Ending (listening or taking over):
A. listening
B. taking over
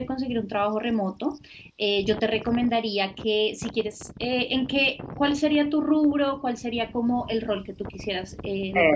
B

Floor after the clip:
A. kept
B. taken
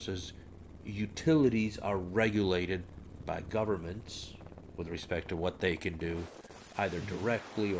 A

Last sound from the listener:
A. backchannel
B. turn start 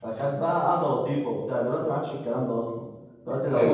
A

